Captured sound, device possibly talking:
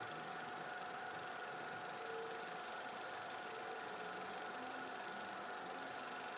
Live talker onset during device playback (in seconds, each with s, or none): none